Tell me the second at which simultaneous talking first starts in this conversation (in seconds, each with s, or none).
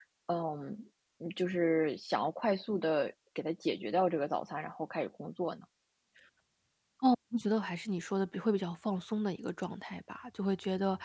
none